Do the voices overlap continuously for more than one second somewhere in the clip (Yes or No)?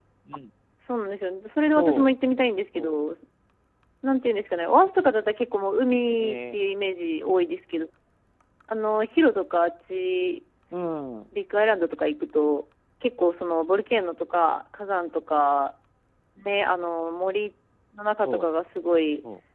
No